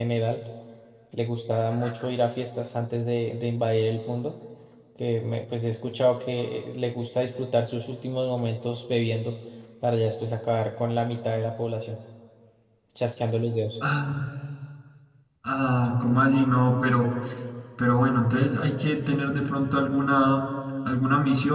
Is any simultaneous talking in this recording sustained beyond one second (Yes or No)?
No